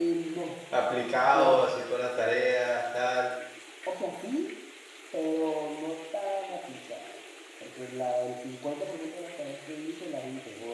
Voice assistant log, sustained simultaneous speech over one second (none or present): none